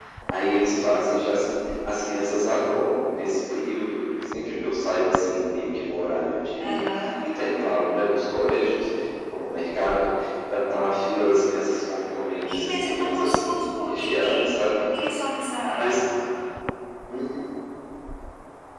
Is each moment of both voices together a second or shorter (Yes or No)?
No